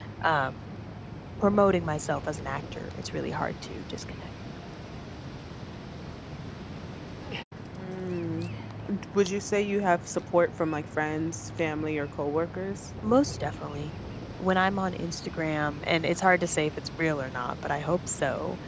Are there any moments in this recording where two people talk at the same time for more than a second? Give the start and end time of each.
none

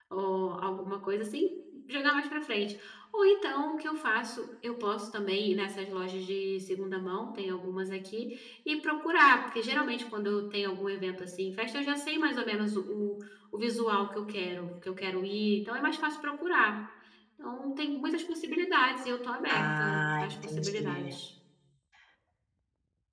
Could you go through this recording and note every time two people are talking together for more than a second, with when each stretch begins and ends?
19.5-21.1

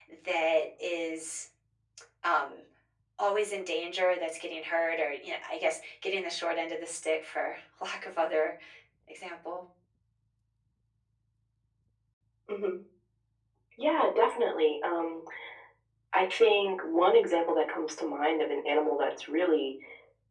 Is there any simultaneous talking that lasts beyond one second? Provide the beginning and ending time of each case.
none

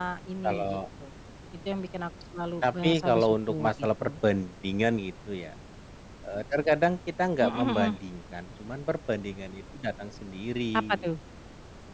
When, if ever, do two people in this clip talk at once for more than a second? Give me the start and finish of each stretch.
2.6-4.1

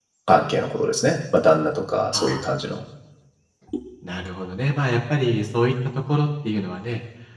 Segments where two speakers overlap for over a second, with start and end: none

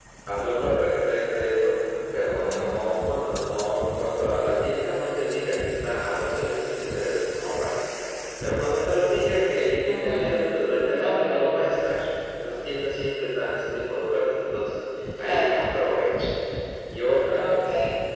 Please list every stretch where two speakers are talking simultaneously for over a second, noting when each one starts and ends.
none

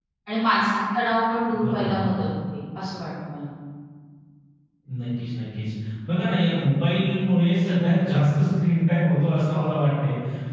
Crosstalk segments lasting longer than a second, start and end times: none

